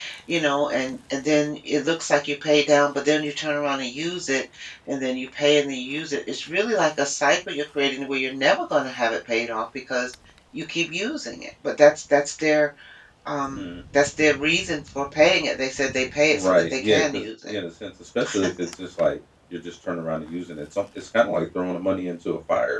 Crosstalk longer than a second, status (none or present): present